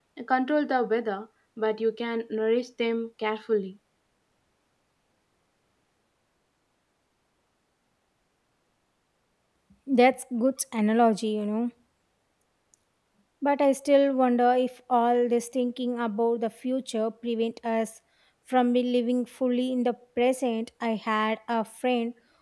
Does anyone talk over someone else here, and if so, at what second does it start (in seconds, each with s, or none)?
none